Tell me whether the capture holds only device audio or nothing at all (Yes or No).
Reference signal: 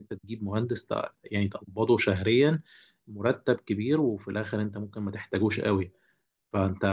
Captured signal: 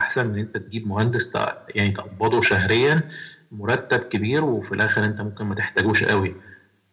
Yes